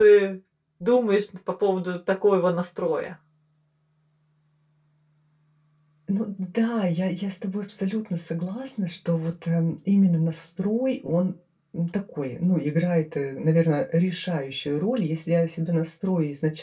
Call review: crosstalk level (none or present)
none